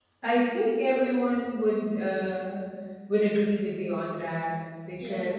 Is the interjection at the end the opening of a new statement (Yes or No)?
No